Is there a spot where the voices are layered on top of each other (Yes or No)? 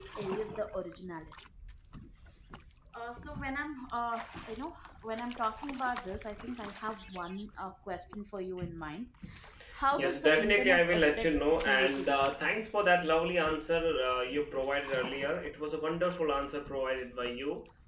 Yes